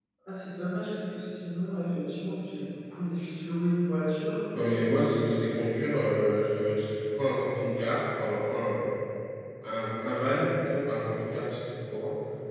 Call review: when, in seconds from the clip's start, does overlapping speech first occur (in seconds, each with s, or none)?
none